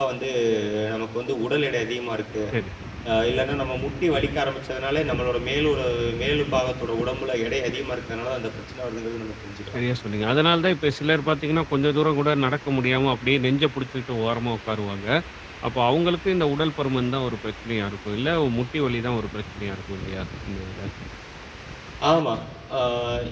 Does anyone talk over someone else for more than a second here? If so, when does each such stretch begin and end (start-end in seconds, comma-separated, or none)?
none